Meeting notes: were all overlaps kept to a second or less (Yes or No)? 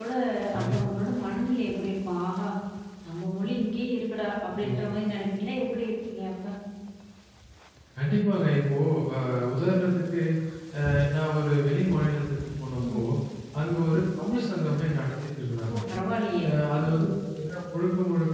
Yes